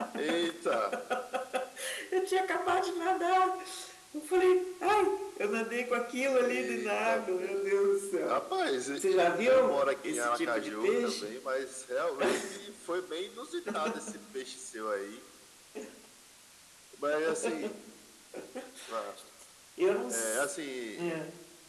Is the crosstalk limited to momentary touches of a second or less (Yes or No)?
No